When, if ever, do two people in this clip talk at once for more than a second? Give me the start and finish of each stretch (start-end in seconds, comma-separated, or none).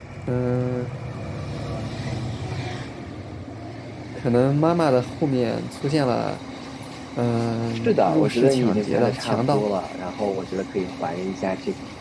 7.7-9.6